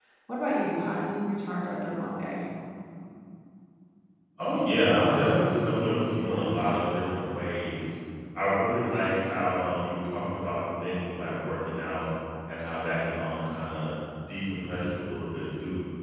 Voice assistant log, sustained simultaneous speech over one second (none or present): none